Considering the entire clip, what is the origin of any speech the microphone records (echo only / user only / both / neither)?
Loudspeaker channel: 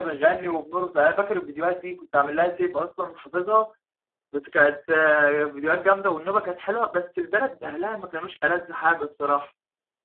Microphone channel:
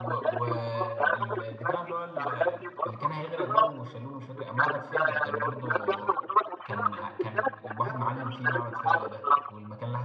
both